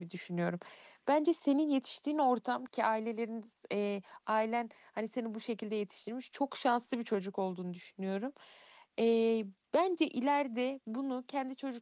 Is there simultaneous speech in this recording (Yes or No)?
No